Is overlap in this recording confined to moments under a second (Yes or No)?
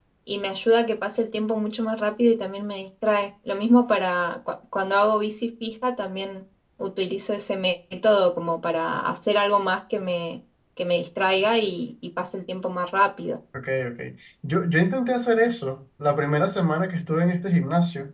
Yes